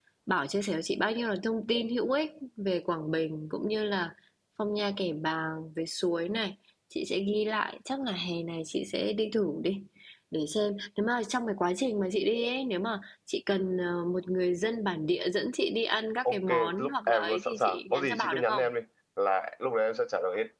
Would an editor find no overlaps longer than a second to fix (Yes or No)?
No